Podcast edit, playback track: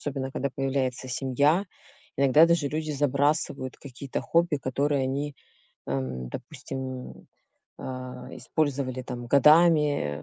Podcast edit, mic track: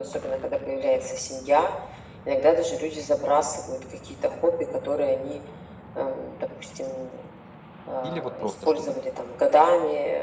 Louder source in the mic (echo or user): echo